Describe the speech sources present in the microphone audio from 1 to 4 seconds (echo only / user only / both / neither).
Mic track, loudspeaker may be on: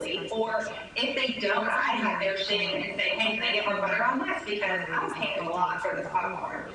both